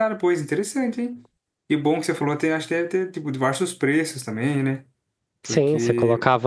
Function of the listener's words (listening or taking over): taking over